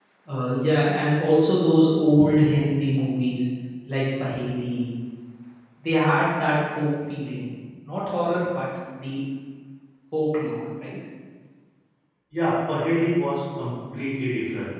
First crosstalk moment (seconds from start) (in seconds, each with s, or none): none